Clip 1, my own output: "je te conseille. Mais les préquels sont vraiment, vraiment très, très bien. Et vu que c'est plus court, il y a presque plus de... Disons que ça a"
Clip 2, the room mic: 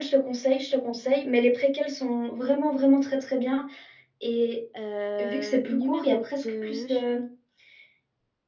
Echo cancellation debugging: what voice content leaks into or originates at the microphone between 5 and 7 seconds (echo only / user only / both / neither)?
both